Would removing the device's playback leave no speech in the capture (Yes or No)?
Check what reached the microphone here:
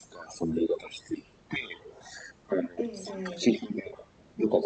No